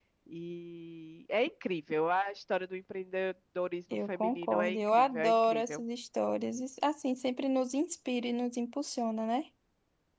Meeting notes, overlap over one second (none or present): present